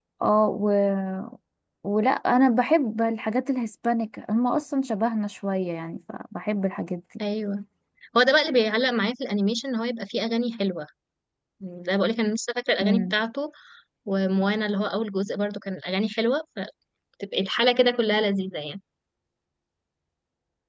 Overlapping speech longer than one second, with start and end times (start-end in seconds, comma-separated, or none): none